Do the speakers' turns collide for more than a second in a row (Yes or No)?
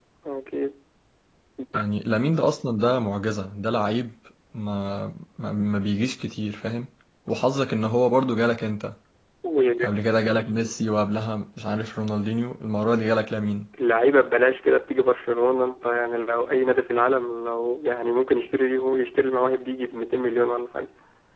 No